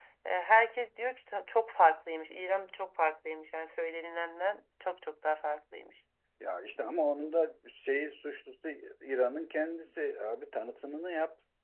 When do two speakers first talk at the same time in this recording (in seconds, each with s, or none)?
none